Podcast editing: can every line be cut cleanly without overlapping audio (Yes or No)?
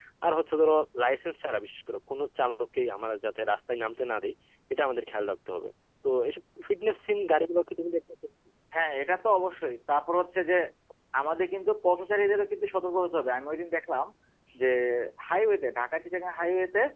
Yes